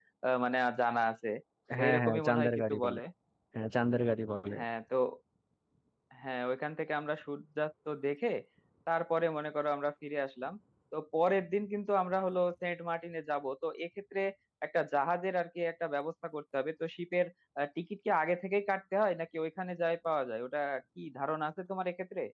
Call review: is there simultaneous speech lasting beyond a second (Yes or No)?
Yes